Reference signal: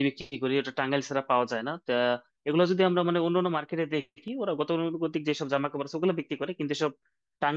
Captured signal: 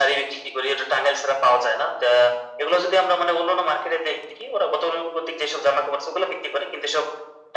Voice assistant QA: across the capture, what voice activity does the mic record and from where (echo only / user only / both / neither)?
echo only